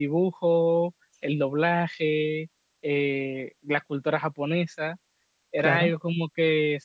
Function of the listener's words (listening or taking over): listening